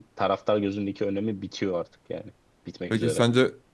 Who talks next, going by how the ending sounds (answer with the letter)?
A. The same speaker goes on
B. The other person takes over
B